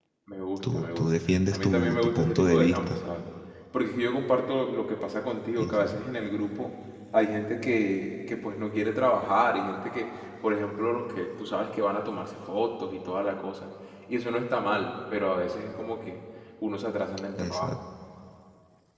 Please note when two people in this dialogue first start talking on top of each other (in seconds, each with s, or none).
0.7 s